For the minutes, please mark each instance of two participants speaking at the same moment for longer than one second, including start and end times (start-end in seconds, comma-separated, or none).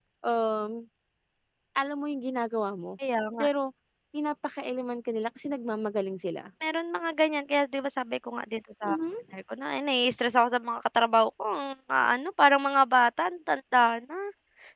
none